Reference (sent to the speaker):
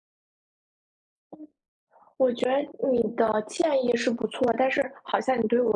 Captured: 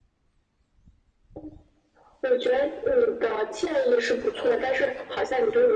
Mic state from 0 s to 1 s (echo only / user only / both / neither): neither